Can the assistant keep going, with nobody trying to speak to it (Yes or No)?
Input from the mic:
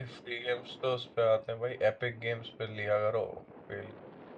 No